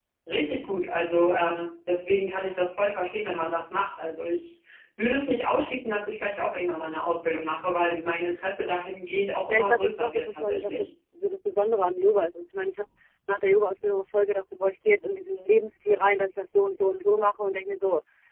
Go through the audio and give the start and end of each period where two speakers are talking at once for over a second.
9.5-10.9

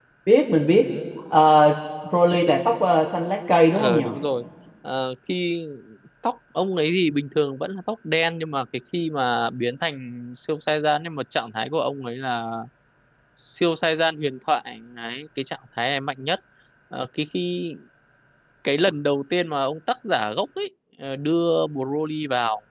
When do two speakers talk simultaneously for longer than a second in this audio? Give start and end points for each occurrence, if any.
none

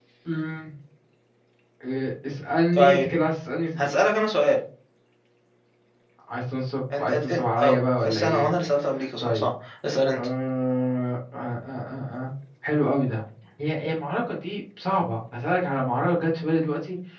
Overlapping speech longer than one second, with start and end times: 7.0-8.5

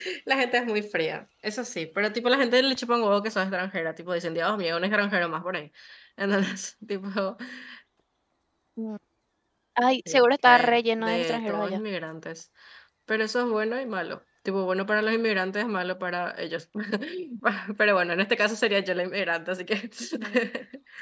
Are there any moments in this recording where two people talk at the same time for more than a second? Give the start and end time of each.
10.1-11.8

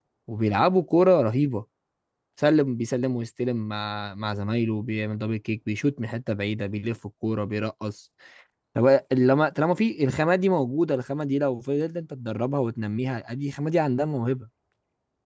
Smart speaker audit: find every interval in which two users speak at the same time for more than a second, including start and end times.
none

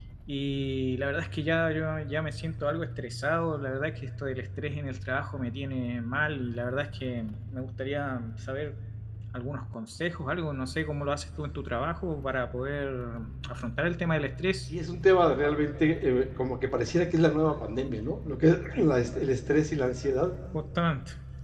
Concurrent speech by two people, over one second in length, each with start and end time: none

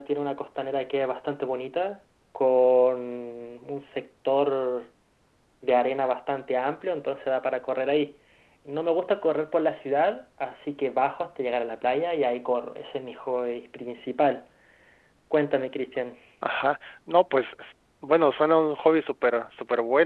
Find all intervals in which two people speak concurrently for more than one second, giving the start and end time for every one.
none

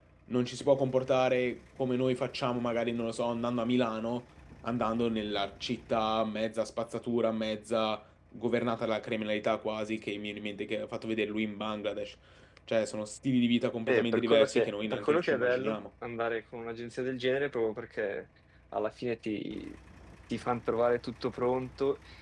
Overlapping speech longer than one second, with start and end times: 13.9-15.8

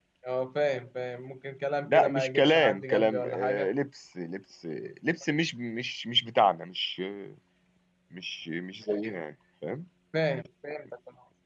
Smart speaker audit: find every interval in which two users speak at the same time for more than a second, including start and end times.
1.9-3.7

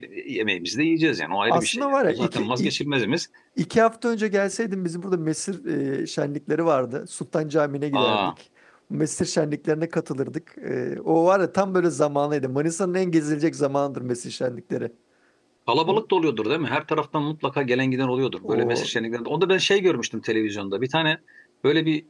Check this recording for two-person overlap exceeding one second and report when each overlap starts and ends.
1.5-2.7

